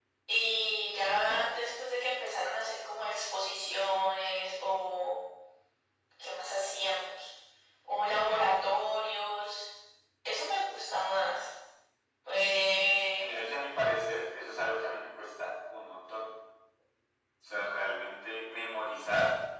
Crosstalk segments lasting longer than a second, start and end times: none

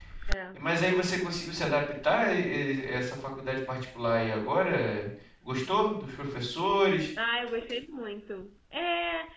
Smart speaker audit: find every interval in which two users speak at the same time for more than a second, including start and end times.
none

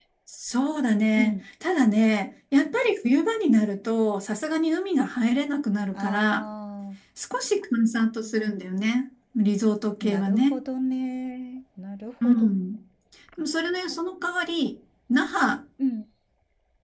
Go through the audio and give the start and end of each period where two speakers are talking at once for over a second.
none

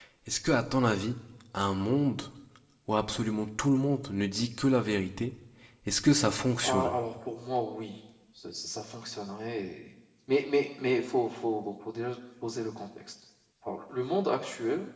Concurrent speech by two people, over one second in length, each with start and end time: none

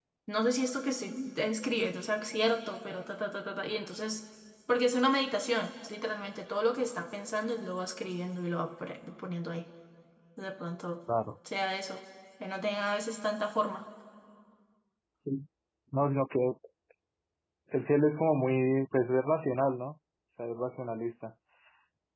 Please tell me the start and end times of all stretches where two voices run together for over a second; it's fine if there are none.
none

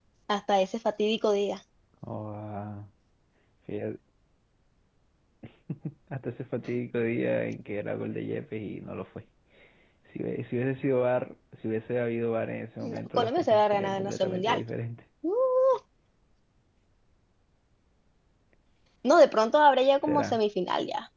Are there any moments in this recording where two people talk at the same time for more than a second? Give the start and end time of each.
12.9-14.6

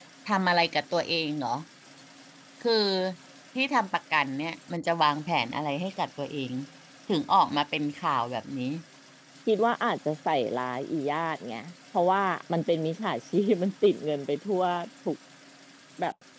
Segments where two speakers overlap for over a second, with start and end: none

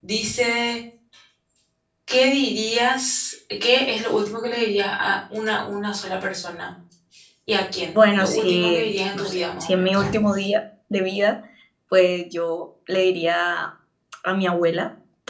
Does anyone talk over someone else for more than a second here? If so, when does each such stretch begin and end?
8.0-10.0

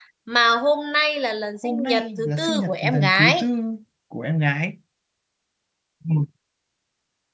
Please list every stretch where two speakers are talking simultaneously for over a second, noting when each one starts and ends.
1.6-3.5

